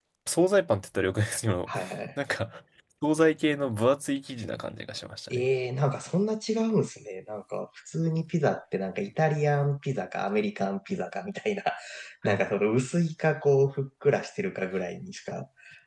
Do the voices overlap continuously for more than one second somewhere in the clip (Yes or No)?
No